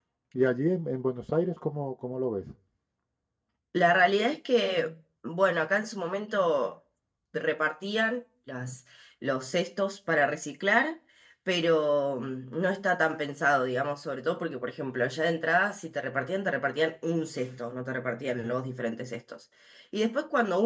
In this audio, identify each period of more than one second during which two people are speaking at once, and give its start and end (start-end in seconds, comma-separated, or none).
none